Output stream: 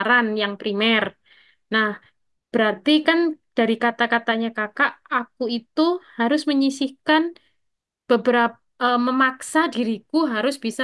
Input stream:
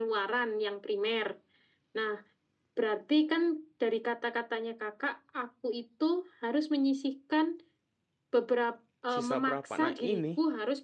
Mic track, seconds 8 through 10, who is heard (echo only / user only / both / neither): both